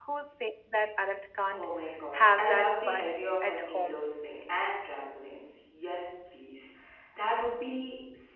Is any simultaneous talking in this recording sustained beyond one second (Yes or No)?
Yes